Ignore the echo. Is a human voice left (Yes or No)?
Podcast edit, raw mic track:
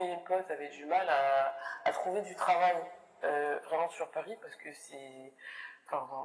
No